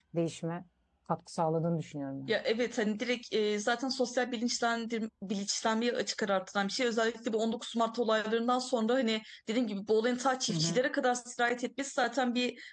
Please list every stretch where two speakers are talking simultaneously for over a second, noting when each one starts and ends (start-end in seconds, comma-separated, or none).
none